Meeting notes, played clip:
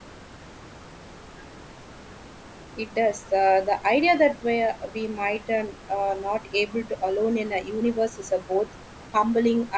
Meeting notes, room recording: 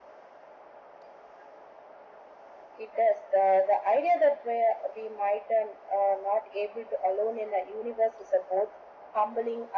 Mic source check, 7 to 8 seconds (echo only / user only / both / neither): echo only